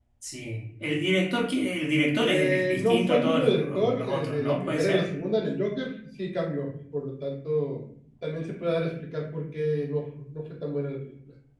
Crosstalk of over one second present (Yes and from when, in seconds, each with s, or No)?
Yes, from 2.2 s